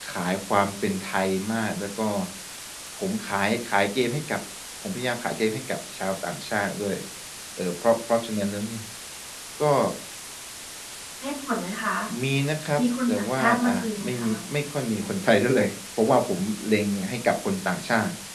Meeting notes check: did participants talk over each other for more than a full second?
Yes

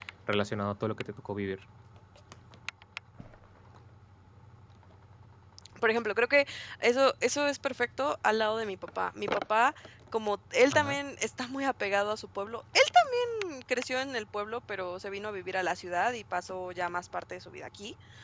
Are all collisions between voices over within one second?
Yes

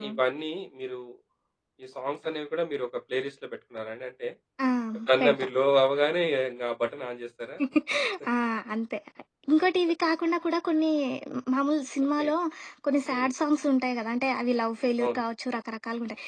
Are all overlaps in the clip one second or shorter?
Yes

